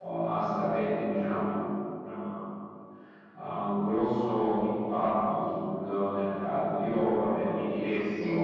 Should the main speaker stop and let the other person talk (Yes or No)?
No